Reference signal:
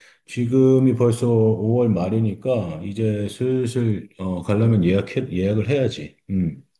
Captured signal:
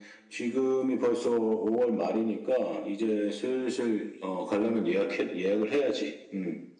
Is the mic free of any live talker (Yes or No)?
Yes